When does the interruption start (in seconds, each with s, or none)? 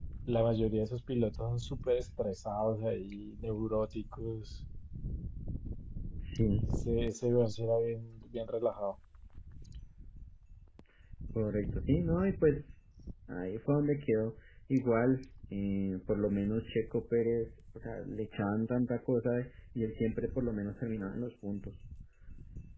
none